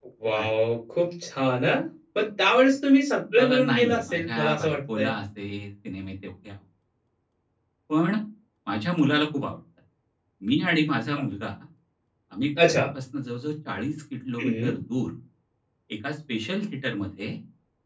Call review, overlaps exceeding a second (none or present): present